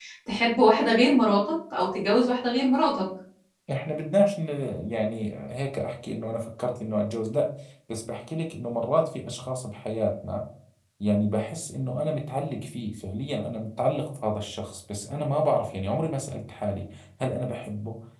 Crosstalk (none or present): none